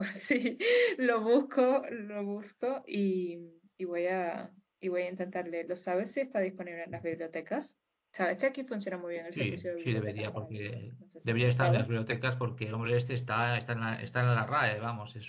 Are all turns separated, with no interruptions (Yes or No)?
No